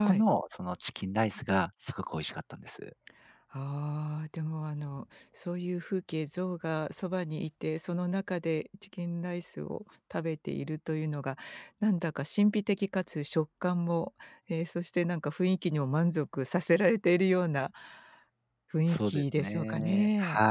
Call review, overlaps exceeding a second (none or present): present